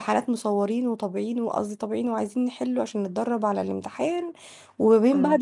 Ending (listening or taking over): listening